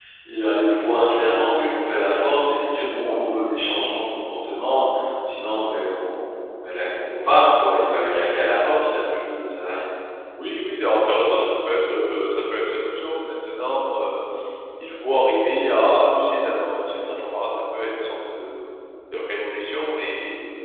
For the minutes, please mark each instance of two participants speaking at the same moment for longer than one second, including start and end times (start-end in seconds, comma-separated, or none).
none